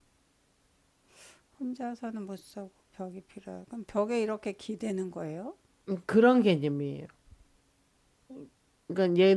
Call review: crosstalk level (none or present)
none